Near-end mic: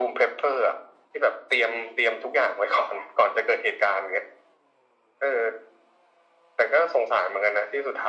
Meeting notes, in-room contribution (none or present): none